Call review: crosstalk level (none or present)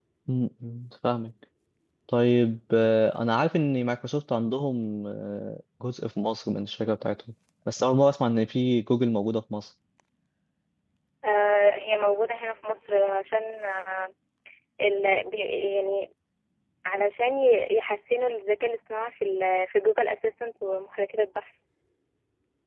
none